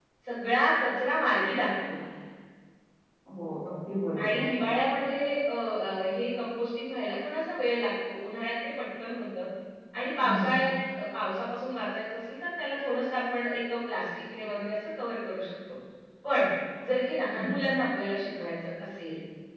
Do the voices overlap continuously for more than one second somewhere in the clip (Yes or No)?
No